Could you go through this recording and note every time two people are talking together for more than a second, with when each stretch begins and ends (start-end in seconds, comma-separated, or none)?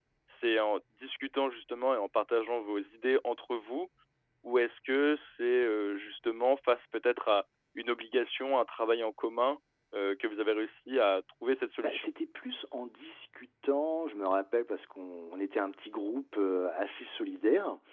none